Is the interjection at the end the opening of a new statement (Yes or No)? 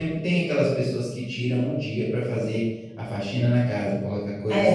No